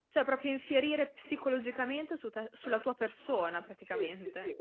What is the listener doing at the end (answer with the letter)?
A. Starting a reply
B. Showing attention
A